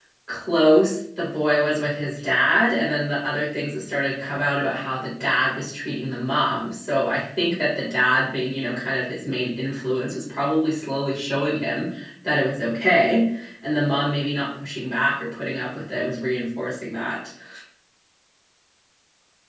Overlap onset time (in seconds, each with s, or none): none